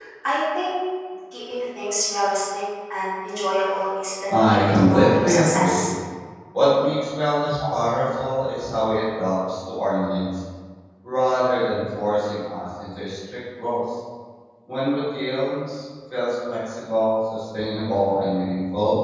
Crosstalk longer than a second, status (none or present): present